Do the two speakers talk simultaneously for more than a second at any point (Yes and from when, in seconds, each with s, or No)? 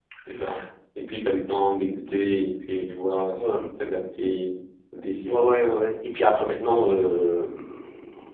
No